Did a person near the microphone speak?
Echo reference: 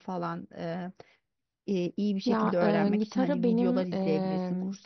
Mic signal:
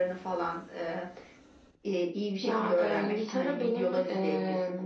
No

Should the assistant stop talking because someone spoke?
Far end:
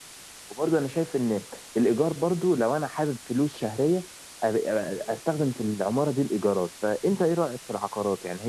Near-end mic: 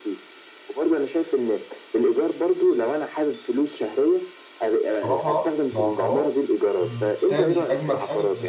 Yes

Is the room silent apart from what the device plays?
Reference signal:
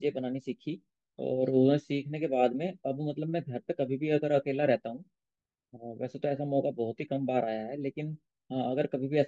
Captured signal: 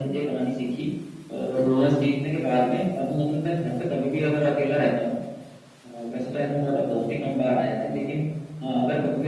Yes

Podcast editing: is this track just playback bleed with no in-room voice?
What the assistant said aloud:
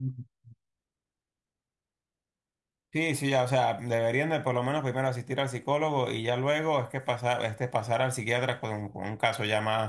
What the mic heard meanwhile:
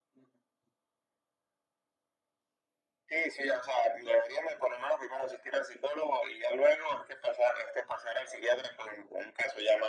Yes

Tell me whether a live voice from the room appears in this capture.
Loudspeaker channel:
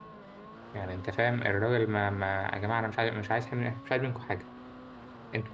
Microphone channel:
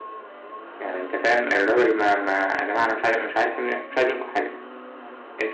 No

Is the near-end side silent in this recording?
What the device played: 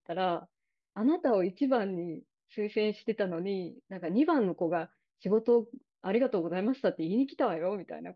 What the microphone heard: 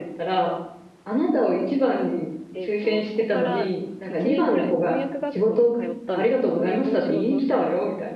No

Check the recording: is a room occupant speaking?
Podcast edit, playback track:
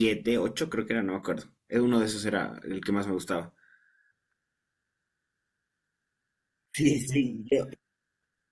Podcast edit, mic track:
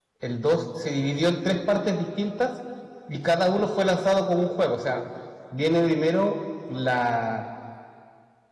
Yes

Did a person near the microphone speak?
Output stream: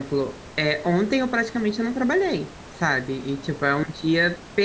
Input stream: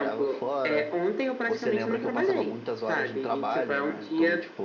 Yes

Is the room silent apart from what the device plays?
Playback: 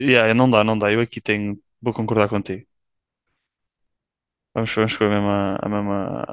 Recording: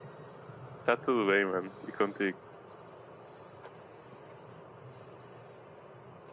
No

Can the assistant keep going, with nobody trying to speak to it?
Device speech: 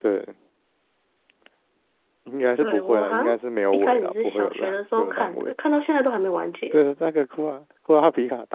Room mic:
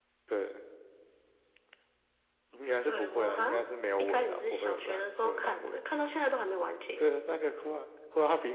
Yes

